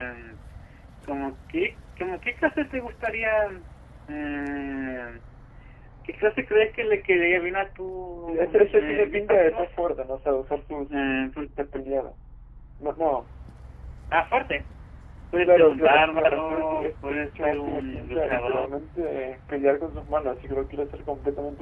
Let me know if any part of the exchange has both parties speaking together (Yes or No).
Yes